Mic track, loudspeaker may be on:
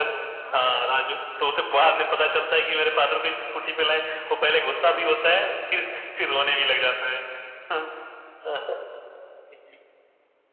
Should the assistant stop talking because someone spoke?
Yes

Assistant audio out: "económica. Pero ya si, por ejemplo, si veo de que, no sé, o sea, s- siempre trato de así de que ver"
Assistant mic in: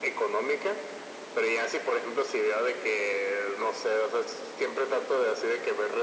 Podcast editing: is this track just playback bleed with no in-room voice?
Yes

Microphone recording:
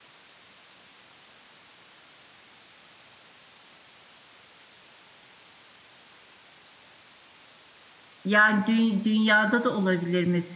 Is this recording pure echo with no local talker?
No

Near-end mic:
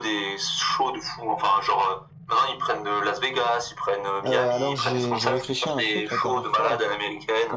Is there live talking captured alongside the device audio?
Yes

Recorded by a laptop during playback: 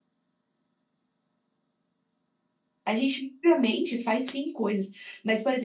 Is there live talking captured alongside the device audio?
Yes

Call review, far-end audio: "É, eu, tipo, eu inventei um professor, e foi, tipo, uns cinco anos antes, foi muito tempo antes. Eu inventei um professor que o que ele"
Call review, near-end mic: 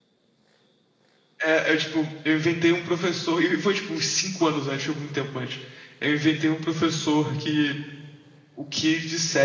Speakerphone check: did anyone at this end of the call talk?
No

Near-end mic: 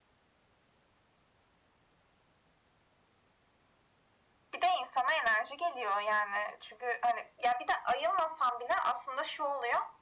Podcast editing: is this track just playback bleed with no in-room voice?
Yes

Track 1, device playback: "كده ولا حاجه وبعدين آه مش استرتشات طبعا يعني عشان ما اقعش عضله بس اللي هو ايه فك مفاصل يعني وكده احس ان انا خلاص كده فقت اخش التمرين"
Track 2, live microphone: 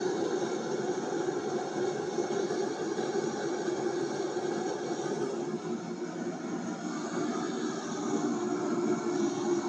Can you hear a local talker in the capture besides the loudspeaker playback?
No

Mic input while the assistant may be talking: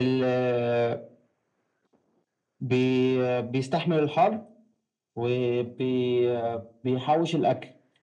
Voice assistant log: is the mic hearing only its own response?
Yes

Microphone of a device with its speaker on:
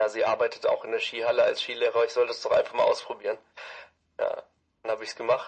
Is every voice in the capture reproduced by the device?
Yes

